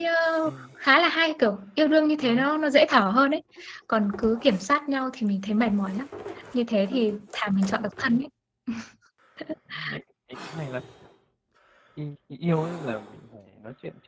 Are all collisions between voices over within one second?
Yes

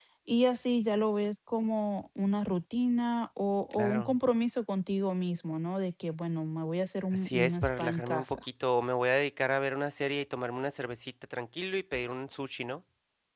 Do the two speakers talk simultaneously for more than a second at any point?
Yes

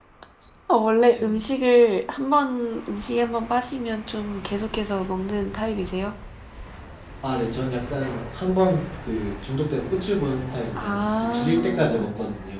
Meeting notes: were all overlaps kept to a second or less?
No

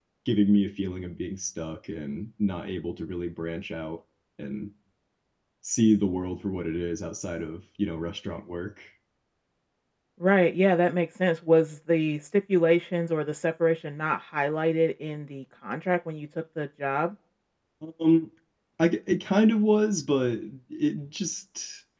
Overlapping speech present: No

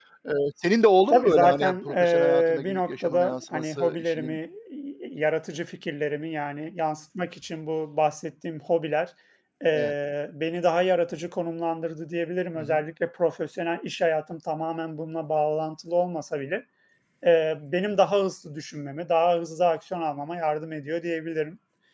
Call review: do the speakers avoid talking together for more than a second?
No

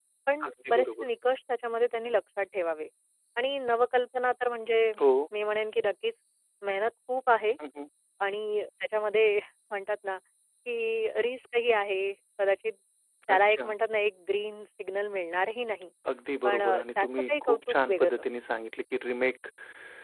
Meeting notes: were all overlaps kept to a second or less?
No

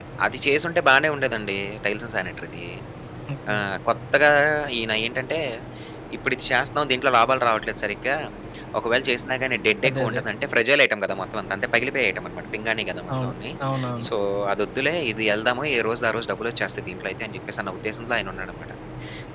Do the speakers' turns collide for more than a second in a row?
No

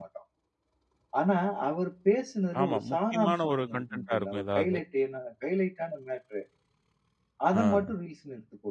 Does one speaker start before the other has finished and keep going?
Yes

